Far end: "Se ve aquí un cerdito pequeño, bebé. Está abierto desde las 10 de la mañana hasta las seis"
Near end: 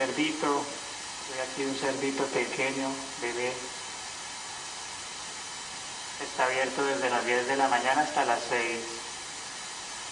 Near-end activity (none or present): none